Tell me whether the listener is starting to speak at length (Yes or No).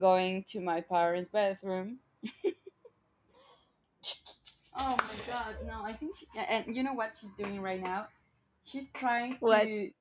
No